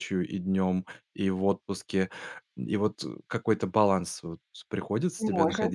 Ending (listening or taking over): taking over